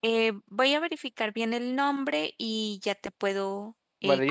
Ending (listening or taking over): taking over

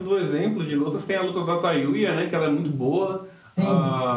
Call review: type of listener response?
taking over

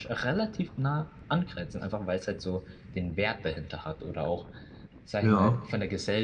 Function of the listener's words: listening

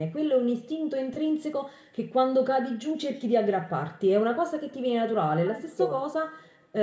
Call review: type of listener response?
listening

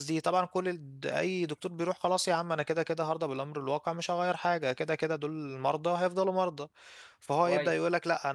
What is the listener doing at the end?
listening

